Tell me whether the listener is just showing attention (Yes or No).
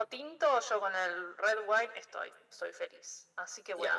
No